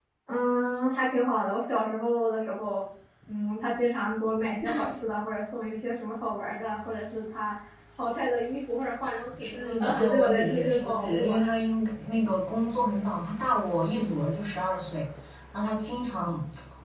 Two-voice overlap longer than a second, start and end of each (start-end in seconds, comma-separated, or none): 9.4-11.4